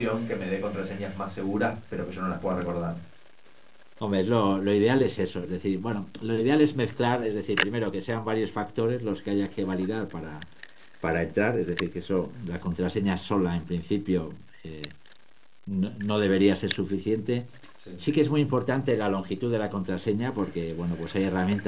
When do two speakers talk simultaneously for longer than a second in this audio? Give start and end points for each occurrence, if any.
none

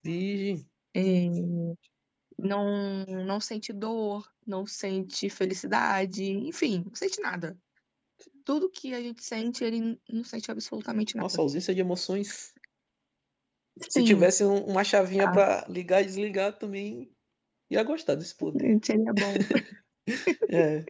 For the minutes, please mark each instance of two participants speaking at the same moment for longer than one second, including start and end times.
none

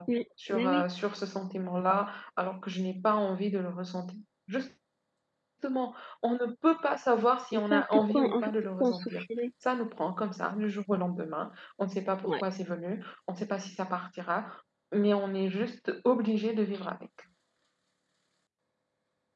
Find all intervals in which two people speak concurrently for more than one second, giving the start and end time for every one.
7.5-9.3

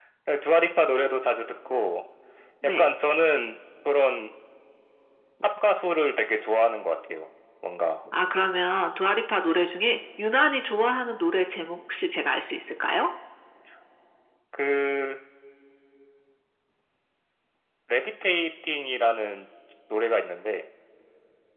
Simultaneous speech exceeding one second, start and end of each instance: none

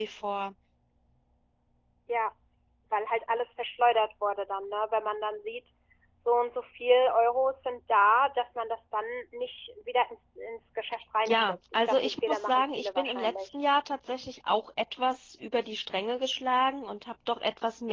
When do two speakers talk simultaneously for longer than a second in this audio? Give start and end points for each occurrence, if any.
11.3-13.6

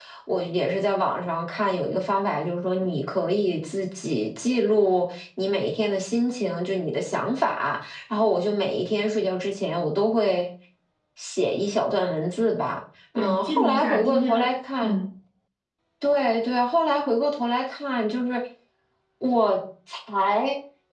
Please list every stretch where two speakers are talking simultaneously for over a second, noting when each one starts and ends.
13.2-14.4

